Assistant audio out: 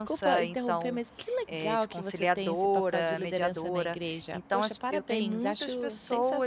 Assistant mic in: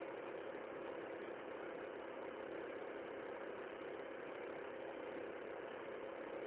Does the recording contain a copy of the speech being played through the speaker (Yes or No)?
No